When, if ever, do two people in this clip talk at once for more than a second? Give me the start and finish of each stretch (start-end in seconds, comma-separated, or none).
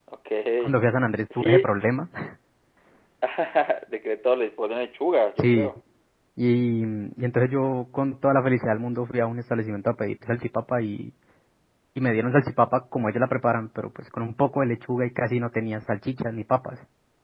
none